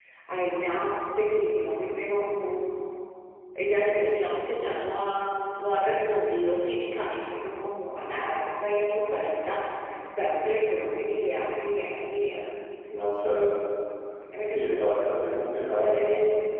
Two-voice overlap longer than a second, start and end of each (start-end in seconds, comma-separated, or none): none